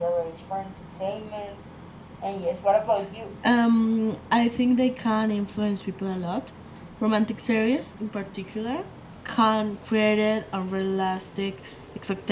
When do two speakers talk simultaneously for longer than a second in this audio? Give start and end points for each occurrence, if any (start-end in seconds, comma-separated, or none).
none